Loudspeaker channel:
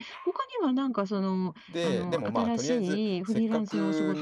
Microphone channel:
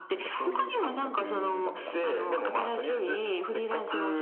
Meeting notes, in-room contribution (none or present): present